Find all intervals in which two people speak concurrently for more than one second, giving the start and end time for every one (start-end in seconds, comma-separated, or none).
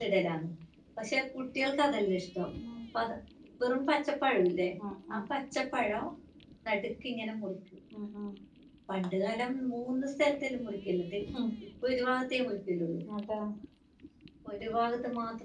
none